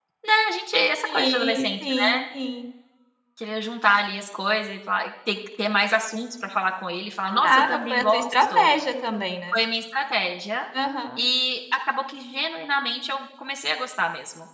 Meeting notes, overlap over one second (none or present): present